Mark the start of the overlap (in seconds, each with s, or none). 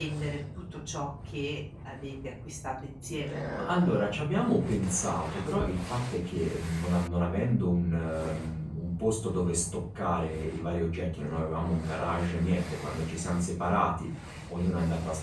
none